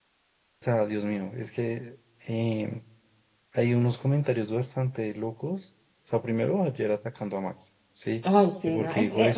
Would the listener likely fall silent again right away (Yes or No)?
No